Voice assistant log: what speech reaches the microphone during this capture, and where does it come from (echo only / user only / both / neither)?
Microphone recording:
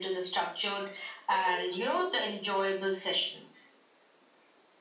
both